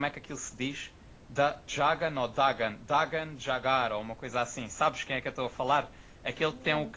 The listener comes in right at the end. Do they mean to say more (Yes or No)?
No